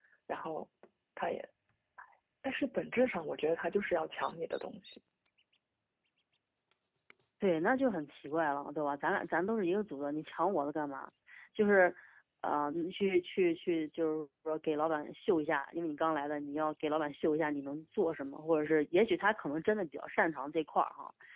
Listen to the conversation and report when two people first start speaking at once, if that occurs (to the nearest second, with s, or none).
none